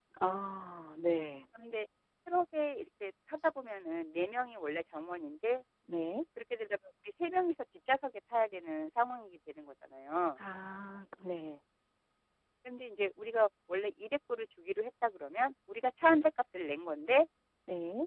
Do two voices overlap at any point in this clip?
No

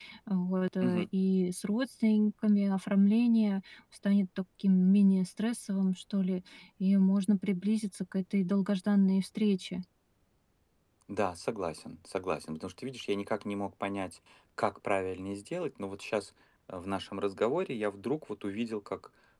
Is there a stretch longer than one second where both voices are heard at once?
No

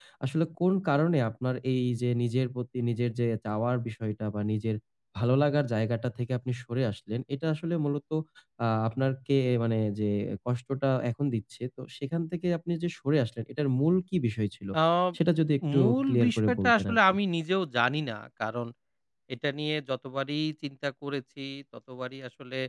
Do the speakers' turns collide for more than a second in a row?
Yes, from 15.8 s

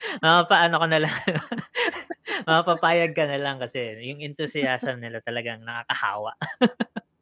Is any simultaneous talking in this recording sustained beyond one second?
No

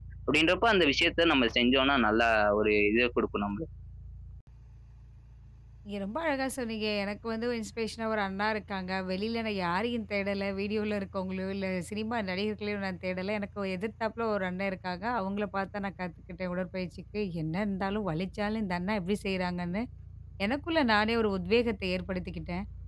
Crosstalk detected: No

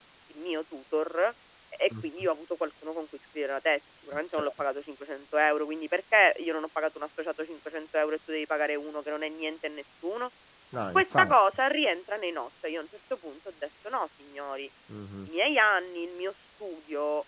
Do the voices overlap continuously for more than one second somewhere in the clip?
No

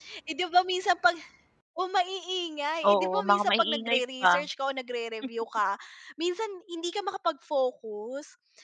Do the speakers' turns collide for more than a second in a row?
Yes, from 2.8 s

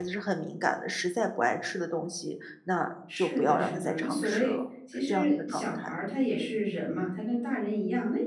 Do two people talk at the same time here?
Yes, from 3.1 s

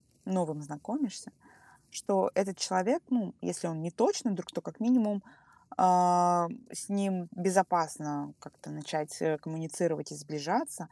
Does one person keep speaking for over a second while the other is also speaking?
No

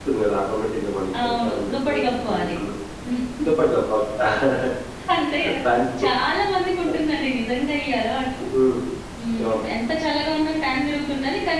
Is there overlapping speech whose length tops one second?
Yes, from 1.2 s

